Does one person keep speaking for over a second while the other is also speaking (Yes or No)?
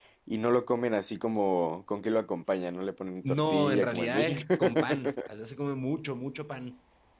Yes